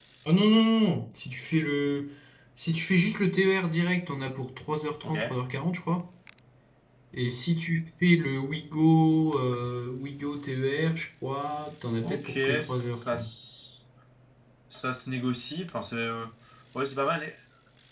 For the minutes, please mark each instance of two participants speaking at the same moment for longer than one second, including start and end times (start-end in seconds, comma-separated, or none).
12.0-13.2